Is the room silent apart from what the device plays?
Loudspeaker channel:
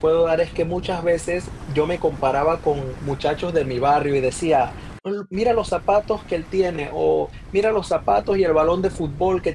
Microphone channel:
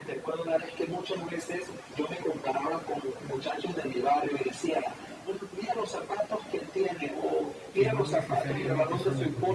No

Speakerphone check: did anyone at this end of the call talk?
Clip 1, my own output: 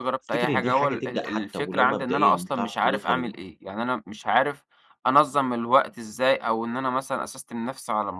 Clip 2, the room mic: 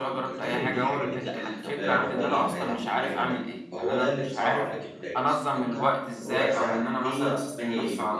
Yes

